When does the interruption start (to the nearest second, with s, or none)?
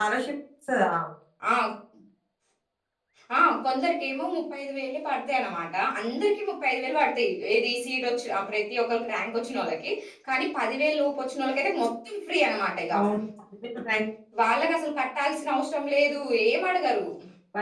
none